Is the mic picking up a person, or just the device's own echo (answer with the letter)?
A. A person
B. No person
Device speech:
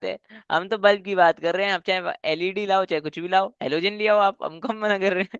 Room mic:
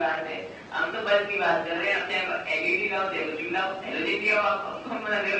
B